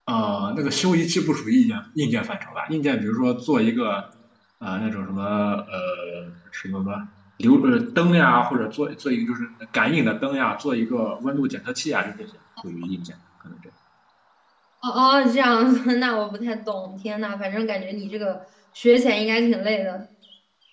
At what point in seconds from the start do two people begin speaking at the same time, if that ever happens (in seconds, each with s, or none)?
none